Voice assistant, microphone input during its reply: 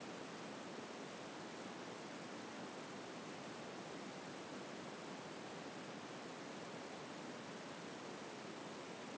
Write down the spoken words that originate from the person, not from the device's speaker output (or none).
none